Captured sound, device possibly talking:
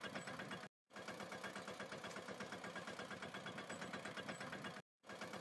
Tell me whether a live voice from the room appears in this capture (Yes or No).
No